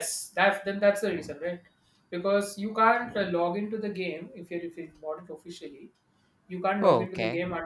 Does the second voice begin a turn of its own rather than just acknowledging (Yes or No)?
No